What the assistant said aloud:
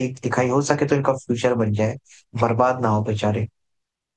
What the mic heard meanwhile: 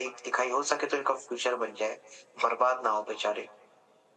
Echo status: present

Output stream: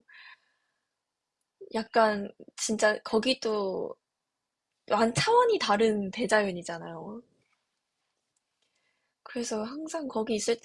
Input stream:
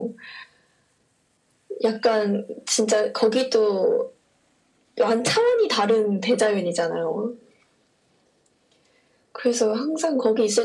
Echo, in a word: present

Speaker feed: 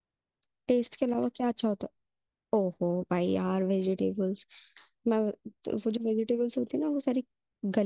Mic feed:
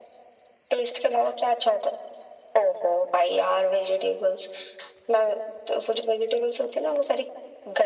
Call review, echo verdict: present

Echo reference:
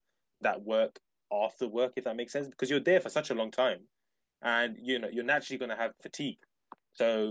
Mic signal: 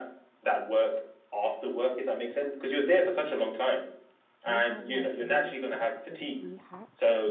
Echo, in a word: present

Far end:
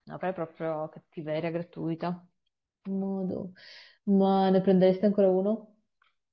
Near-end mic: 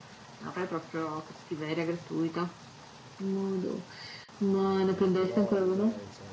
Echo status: present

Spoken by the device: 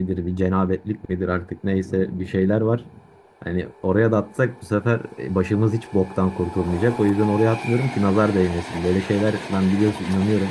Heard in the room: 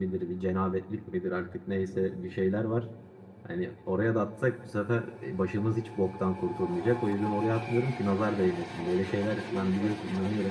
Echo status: present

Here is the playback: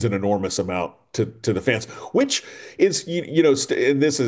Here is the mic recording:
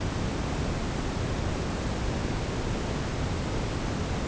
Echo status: none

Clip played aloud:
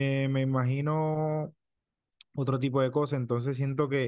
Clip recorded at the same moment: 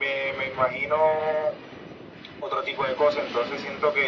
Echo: present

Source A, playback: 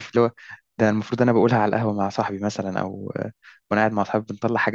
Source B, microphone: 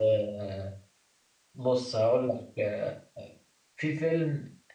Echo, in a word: none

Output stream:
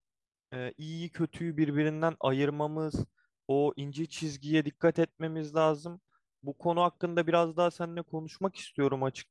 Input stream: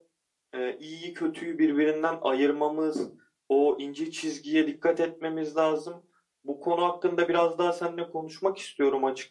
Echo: present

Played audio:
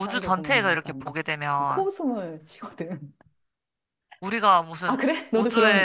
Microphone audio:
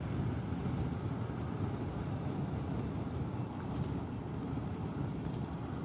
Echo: none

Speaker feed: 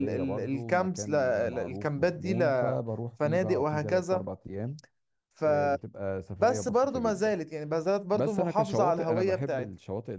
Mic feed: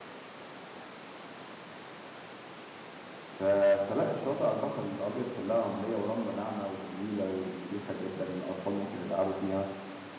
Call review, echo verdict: none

